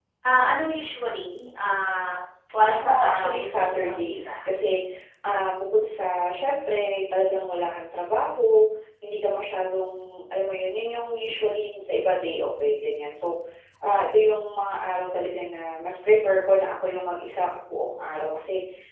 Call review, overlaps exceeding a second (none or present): present